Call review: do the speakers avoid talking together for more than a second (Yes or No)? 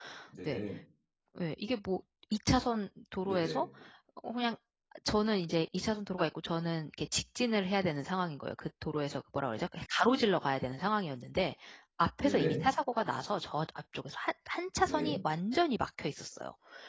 Yes